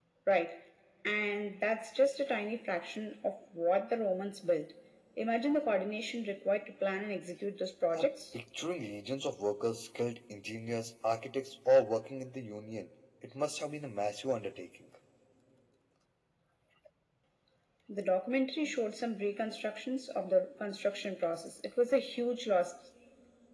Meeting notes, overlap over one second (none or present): none